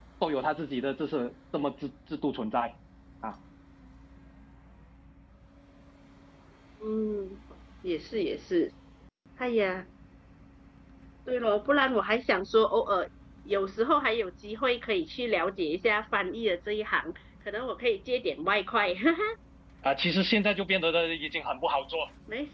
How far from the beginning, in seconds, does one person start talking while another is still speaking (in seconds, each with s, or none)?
none